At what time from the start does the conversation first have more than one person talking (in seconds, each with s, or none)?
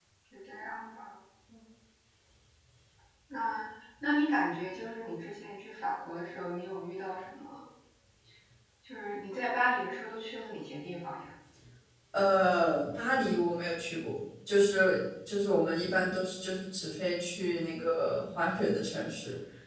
none